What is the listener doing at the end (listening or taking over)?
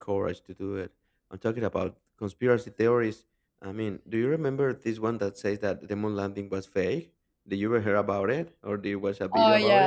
taking over